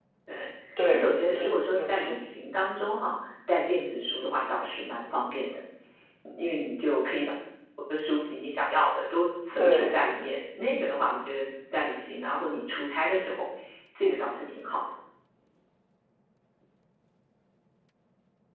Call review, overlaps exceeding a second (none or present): present